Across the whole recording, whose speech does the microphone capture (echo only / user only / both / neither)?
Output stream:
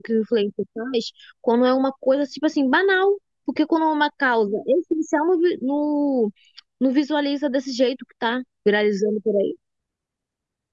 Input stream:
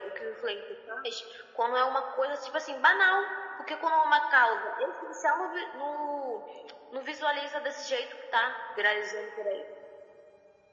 echo only